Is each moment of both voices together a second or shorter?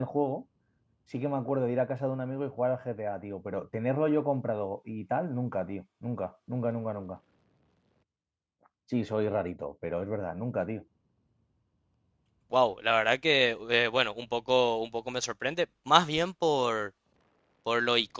Yes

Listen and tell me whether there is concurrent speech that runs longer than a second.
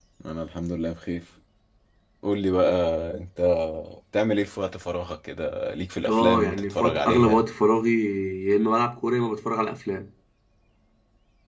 Yes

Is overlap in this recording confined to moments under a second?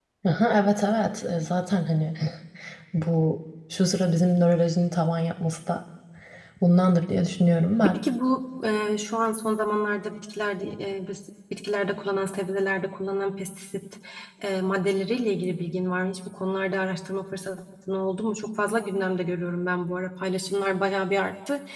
Yes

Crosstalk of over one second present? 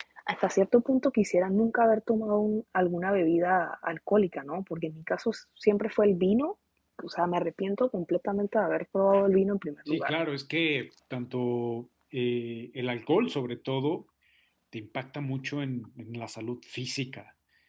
No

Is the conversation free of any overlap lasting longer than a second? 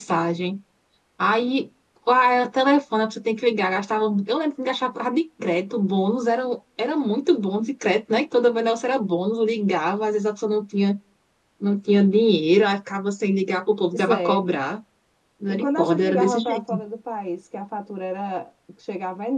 No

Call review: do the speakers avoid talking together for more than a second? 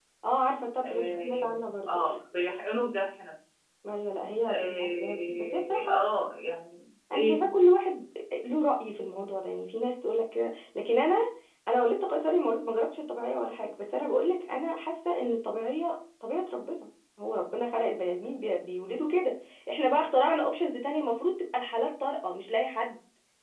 No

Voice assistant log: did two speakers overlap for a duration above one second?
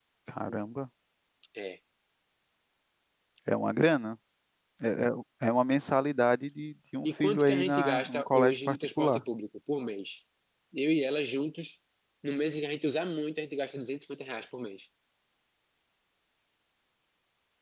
Yes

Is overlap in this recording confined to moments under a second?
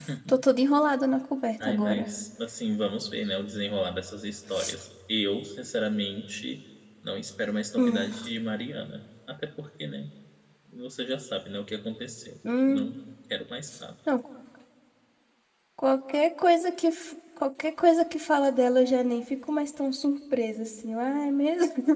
Yes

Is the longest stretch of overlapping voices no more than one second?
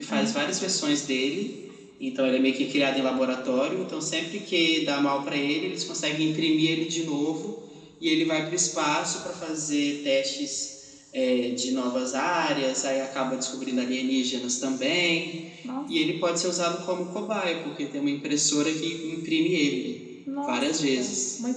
Yes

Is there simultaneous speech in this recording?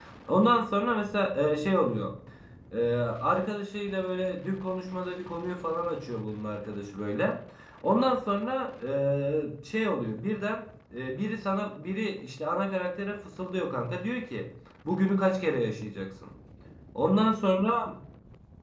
No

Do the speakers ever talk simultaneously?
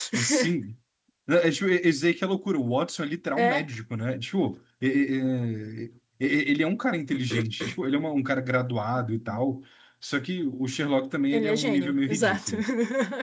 Yes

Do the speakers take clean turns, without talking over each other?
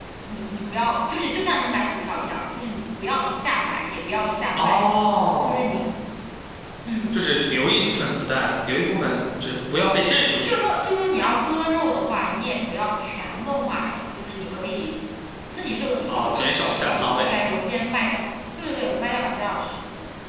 No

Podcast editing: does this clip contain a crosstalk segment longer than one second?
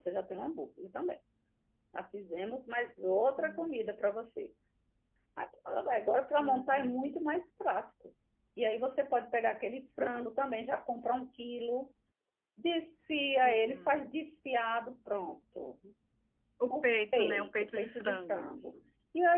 Yes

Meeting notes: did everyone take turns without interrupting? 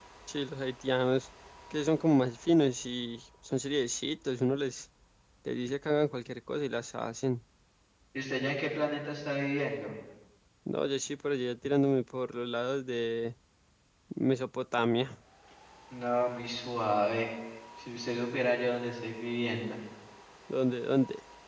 Yes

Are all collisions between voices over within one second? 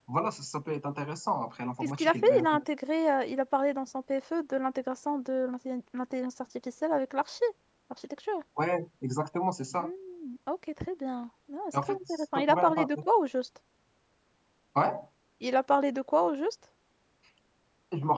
No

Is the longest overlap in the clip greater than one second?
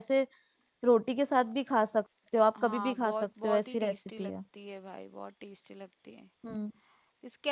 Yes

